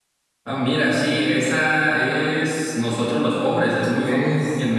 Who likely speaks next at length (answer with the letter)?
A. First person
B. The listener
B